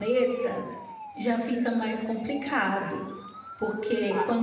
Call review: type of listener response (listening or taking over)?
listening